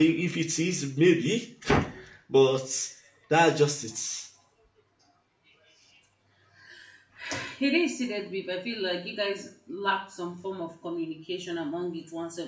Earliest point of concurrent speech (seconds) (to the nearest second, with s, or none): none